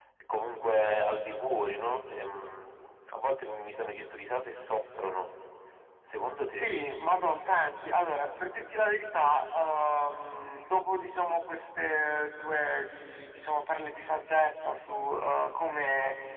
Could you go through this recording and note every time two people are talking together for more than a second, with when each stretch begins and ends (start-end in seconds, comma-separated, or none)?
none